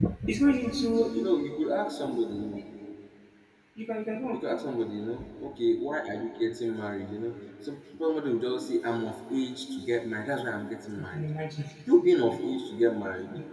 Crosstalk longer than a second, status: none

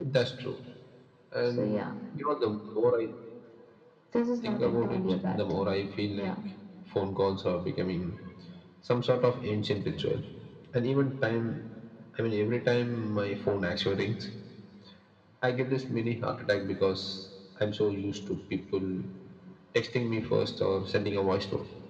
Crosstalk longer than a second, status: present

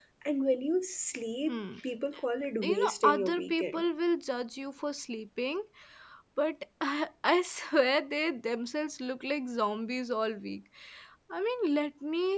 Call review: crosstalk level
present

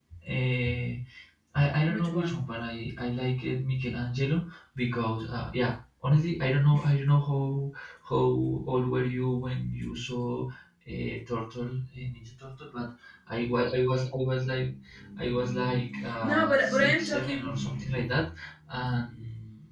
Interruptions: present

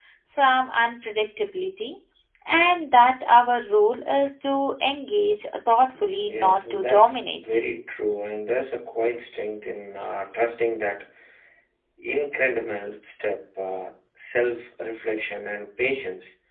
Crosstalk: present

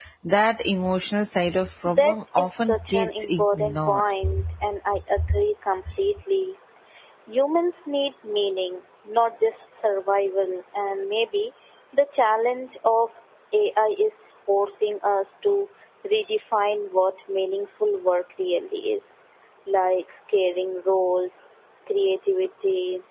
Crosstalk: present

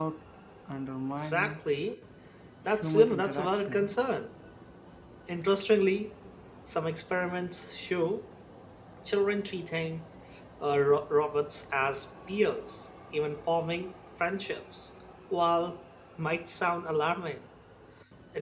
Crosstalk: present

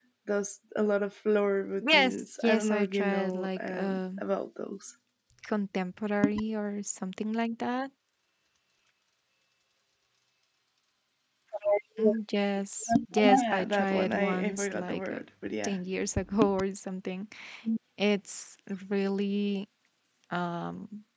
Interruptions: present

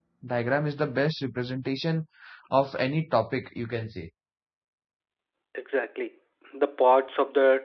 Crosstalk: none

